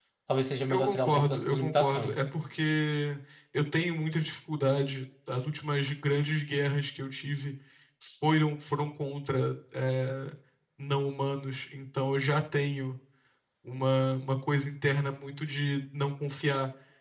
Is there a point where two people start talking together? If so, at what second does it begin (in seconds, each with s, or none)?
0.7 s